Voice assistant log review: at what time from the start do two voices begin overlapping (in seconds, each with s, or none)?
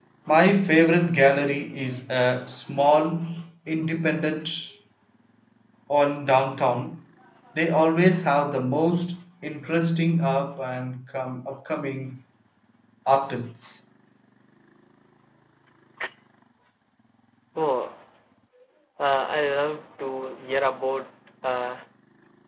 none